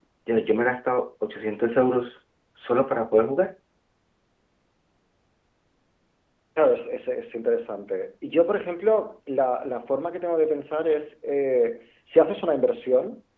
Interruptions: none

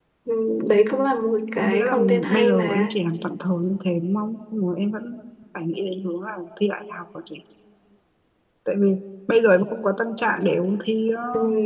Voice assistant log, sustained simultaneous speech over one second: present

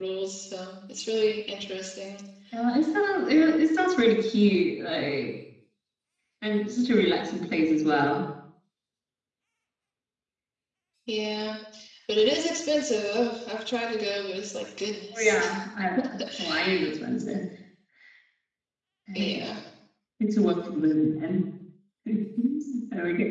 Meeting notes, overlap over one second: none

